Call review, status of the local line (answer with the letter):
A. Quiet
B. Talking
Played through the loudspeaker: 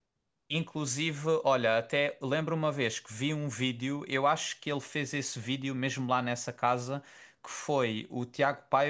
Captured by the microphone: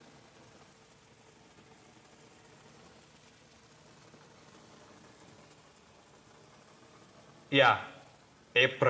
B